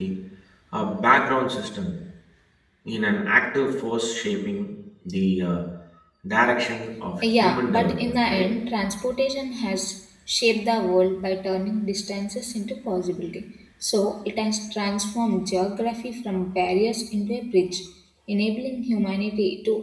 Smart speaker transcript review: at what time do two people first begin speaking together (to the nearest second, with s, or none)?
7 s